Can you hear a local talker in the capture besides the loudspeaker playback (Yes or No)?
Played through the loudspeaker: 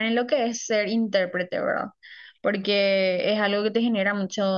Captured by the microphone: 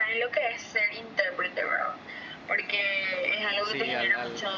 Yes